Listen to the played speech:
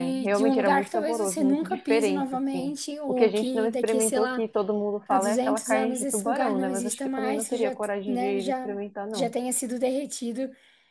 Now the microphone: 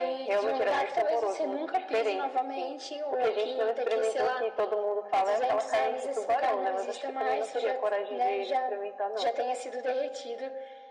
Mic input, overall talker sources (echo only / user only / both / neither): echo only